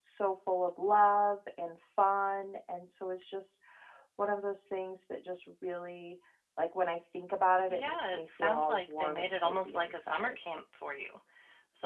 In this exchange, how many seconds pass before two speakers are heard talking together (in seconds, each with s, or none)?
7.7 s